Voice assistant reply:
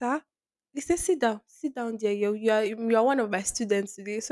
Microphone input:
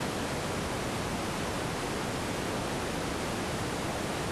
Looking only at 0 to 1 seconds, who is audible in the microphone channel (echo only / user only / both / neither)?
neither